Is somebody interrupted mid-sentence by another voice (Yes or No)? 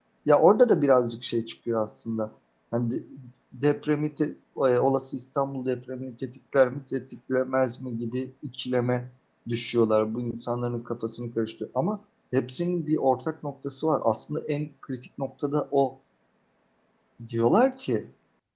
No